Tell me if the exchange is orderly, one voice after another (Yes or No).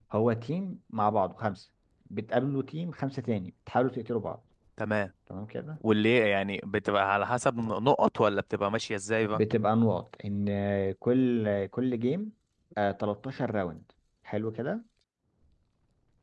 Yes